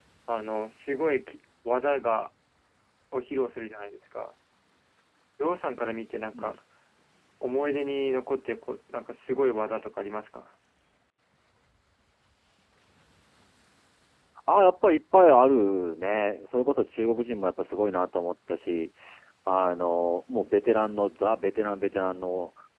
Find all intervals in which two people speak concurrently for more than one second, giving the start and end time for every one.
none

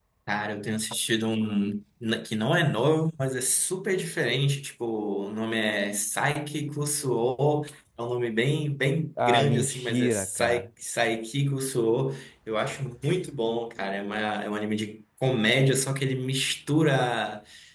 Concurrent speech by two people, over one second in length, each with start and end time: 9.3-10.7

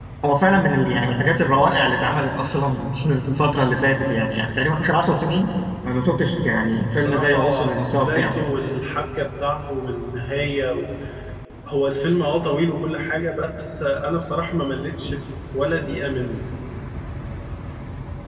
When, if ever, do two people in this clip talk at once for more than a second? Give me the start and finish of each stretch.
7.0-8.3

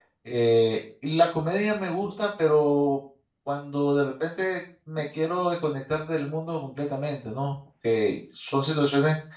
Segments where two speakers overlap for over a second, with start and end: none

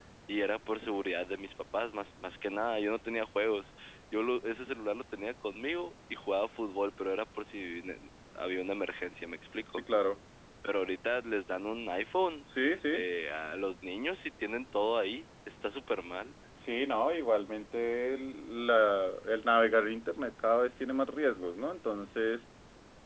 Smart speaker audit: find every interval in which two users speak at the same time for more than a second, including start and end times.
none

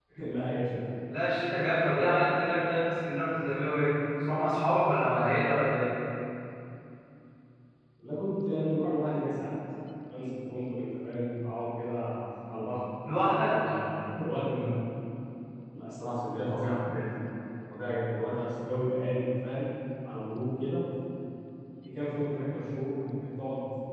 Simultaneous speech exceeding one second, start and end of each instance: none

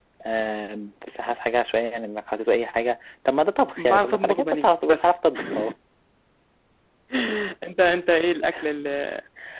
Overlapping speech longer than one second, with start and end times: 3.8-5.1

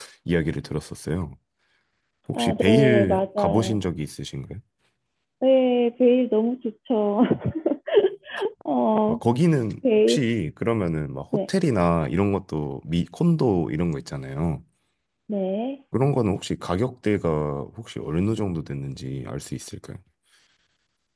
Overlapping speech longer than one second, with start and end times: 2.3-3.8

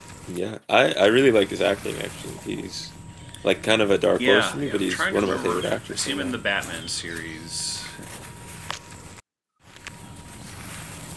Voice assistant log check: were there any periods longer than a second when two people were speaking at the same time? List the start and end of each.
4.2-6.3

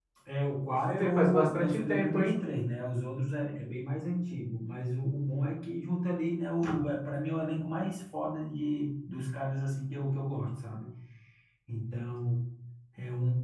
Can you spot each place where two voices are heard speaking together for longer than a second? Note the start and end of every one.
0.9-2.3

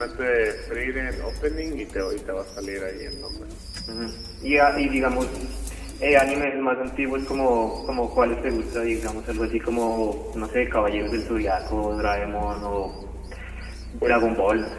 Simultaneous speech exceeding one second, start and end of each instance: none

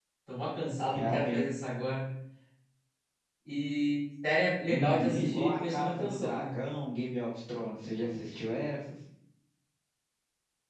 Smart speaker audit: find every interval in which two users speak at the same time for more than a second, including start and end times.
4.7-6.5

